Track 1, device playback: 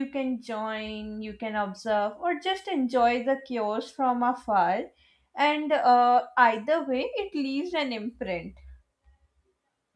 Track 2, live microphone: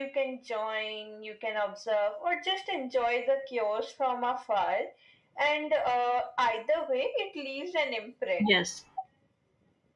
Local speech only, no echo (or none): Yes.